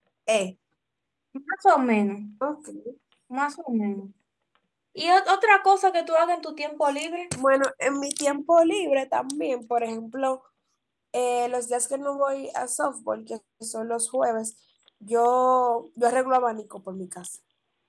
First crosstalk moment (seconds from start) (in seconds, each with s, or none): none